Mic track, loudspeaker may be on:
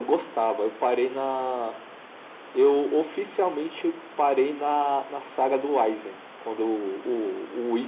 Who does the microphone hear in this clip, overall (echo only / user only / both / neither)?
echo only